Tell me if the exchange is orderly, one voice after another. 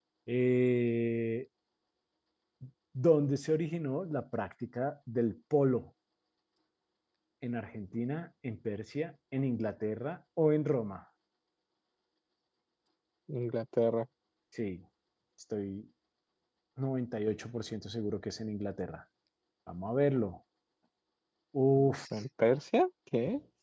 Yes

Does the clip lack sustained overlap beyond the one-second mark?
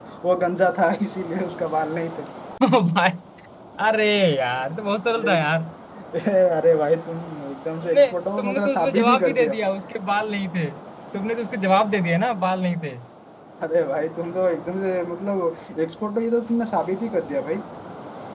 No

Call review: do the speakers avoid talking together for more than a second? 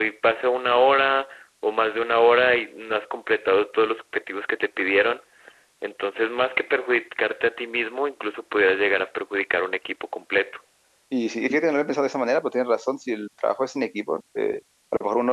Yes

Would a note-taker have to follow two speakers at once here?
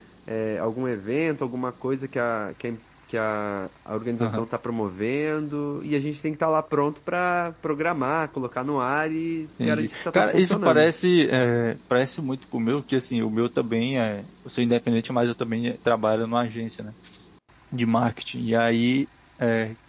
Yes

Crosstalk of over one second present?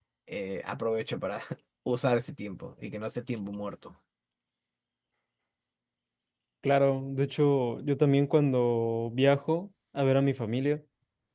No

